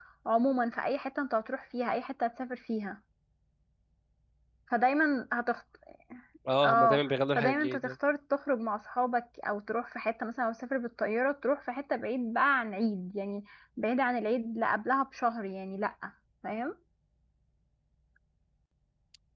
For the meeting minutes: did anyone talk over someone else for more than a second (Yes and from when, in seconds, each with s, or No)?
Yes, from 6.7 s